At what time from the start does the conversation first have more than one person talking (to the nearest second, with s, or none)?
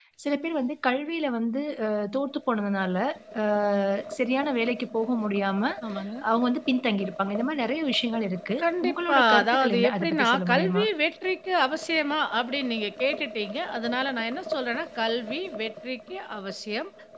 9 s